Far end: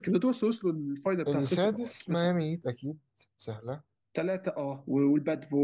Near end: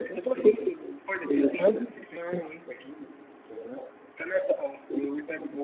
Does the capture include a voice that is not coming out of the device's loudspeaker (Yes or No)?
No